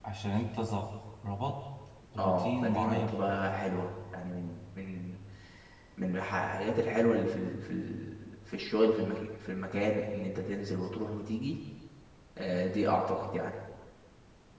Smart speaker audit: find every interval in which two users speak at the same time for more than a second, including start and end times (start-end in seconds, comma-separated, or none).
2.2-3.5